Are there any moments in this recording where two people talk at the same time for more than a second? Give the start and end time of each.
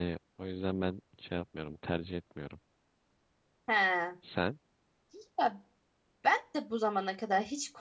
none

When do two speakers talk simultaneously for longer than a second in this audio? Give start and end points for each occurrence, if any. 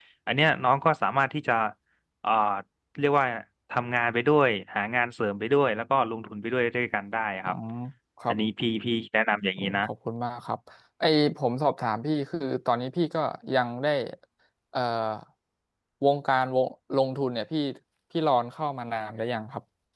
none

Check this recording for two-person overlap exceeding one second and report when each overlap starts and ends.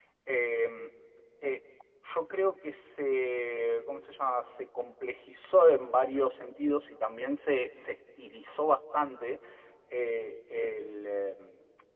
none

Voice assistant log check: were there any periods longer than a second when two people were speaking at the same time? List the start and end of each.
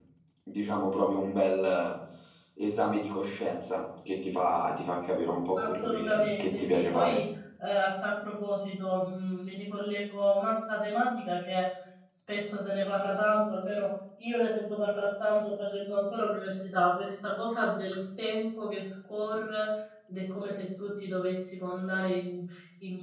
5.5-7.2

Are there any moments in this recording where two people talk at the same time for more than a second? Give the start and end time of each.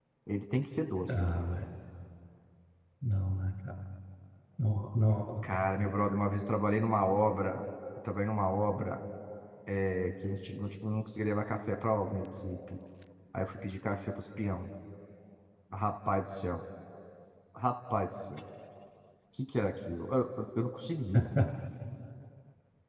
none

